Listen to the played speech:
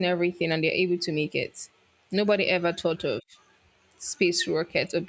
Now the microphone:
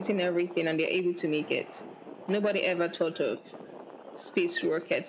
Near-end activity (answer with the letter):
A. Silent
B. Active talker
A